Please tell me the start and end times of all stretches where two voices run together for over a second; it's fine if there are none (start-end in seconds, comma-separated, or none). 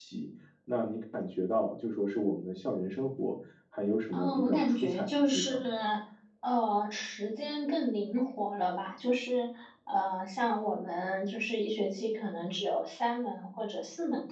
4.1-5.7